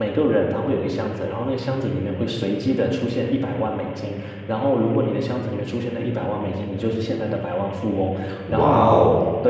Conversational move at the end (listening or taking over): listening